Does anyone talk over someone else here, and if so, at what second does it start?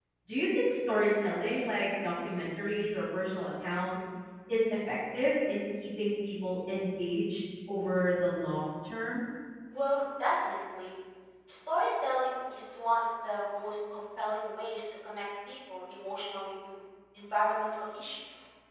none

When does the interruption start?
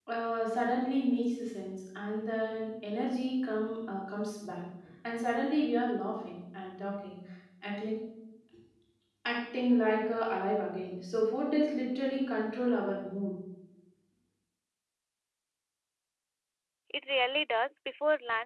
none

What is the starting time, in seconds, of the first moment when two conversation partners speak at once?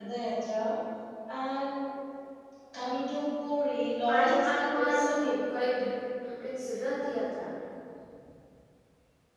4.1 s

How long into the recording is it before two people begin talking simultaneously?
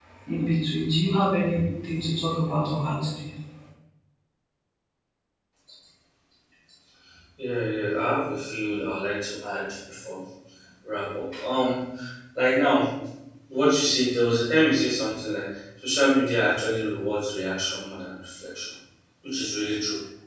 none

